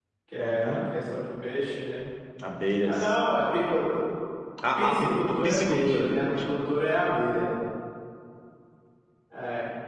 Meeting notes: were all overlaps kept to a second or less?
No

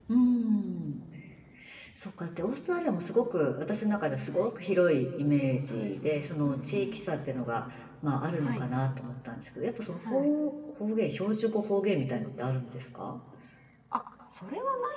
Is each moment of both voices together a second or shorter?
No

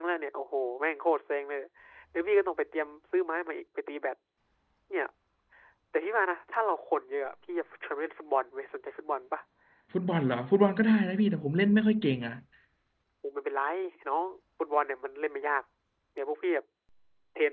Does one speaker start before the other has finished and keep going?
No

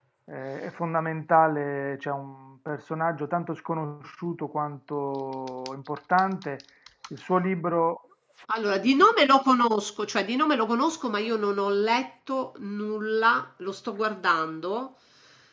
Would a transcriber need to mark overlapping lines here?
No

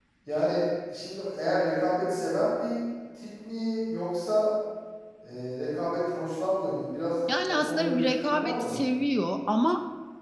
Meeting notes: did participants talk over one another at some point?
Yes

